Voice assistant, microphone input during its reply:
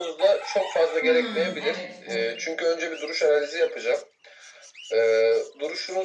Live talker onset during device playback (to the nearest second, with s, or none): 1 s